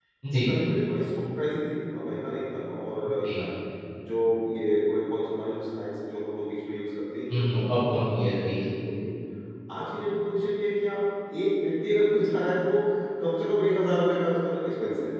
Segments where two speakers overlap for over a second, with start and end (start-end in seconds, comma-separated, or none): 7.3-8.6